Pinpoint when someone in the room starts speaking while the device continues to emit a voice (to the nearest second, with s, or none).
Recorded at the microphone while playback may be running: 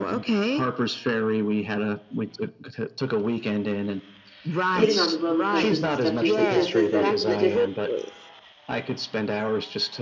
5 s